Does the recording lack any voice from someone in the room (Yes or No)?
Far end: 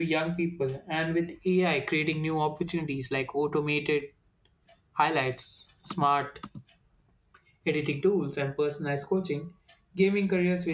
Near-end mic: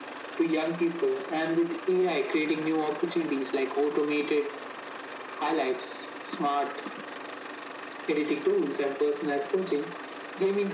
Yes